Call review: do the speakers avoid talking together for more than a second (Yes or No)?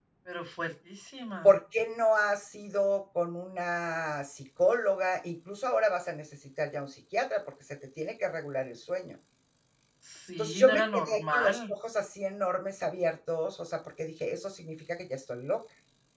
No